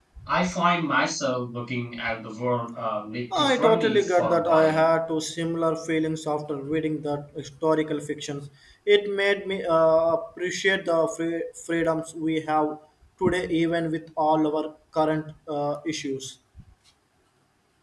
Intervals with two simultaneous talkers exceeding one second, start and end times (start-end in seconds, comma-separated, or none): 3.4-4.9